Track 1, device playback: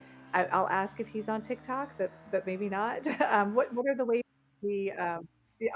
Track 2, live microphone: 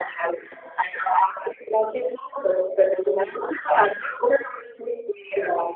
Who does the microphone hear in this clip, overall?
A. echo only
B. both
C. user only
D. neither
A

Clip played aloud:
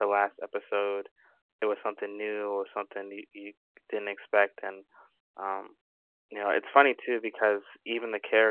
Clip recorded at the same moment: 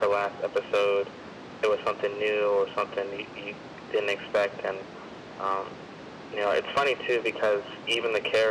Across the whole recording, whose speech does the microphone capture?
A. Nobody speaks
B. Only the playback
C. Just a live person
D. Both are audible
B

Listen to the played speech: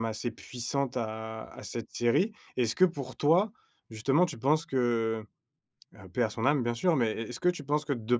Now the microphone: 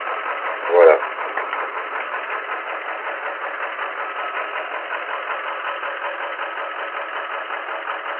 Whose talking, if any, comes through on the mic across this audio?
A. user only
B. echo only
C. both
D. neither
A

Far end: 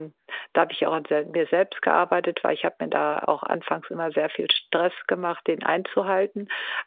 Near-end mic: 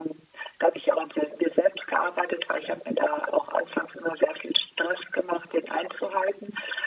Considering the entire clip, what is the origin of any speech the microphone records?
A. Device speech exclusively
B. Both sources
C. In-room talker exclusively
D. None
A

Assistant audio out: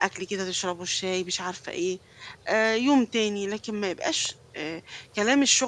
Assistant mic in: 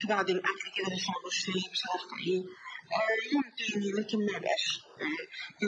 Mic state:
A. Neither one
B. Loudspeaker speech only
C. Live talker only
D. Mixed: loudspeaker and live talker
B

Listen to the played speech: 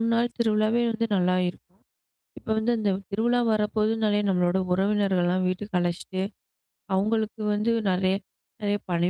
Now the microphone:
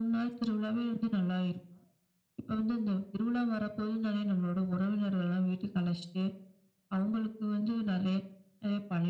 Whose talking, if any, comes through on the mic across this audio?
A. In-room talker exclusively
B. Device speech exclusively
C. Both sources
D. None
B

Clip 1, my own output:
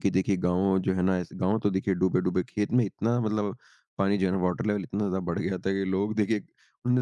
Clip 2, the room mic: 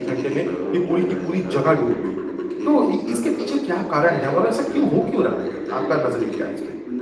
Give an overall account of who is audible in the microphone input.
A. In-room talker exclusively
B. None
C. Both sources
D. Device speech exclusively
C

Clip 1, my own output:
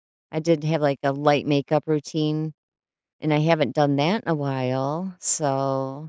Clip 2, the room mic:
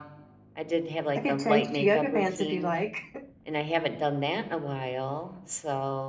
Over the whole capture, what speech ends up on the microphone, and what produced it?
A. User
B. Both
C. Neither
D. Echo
B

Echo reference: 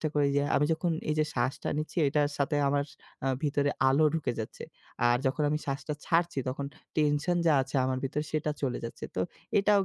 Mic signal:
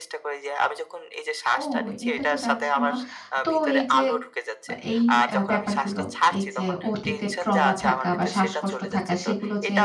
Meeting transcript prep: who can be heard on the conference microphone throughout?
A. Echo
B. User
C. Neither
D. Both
D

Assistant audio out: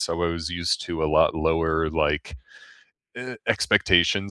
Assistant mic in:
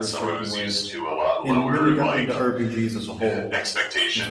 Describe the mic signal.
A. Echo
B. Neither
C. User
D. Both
D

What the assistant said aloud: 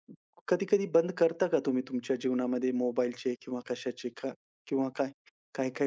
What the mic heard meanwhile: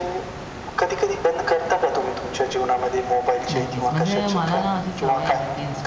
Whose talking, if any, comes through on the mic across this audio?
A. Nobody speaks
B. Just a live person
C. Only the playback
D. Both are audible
D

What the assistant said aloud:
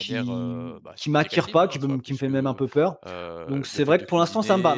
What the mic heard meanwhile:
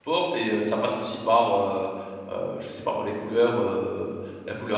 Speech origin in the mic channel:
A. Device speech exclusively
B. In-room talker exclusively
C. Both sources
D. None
B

